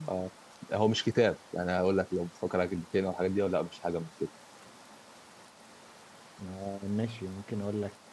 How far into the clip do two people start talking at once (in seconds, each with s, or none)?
none